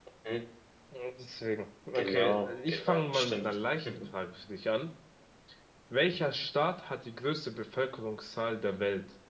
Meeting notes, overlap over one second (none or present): present